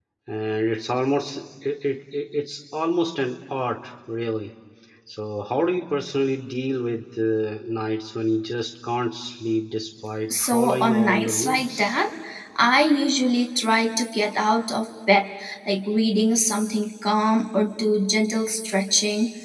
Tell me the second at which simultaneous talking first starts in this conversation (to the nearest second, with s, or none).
10 s